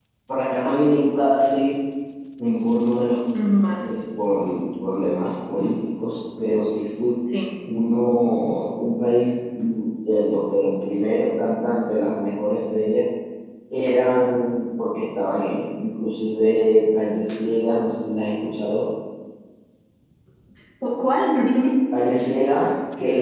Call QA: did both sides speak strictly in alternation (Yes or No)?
Yes